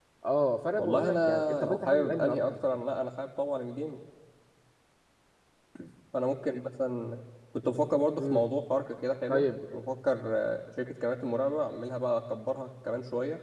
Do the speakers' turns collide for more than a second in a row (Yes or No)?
Yes